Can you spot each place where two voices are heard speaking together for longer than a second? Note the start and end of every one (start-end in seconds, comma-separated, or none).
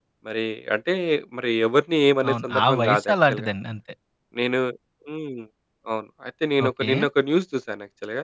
2.3-3.5